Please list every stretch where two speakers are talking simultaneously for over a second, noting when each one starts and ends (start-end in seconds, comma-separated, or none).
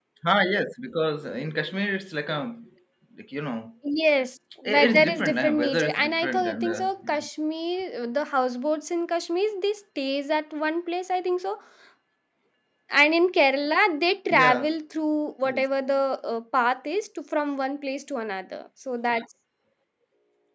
4.7-7.2